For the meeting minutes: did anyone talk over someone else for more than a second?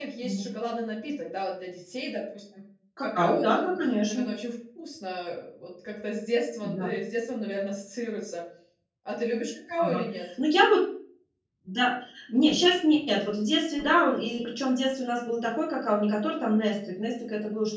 Yes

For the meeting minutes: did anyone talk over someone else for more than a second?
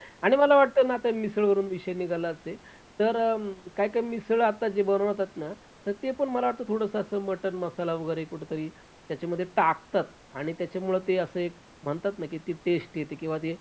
No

